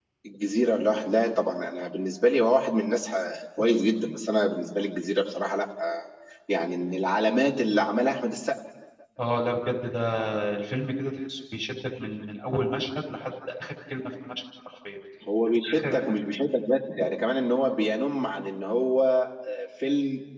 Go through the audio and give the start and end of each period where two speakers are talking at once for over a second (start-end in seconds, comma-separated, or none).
none